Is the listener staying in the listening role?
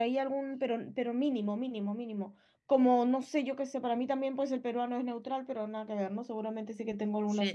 No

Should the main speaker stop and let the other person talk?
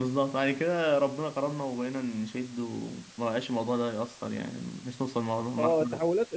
Yes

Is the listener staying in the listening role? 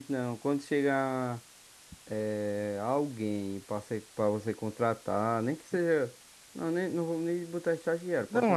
No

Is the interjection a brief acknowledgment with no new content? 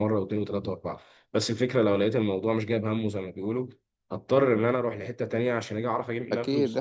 No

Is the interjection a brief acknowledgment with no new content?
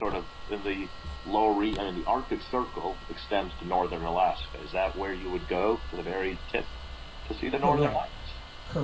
No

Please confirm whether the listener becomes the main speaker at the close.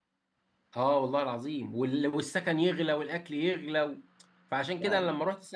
No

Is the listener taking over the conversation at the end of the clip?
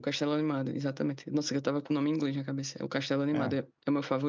No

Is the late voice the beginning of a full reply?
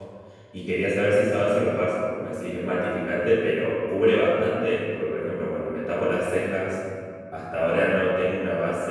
No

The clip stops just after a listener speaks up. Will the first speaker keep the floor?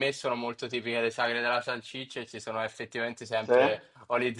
Yes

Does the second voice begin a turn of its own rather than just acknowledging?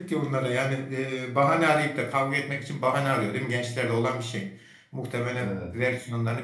No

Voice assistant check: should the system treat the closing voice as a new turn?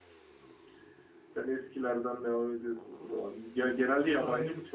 Yes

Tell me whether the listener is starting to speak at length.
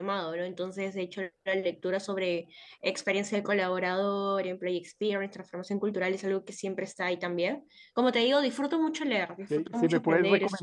Yes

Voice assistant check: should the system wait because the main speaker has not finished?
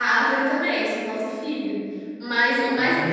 Yes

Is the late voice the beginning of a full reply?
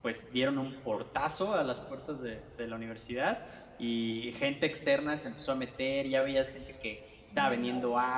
No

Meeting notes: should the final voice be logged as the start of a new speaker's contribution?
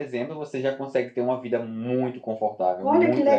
Yes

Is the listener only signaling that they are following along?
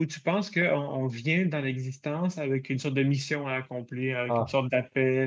Yes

